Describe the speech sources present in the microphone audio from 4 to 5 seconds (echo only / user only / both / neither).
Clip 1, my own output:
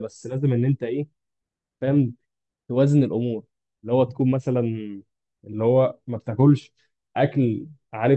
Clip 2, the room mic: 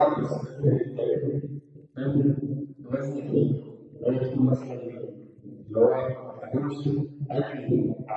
echo only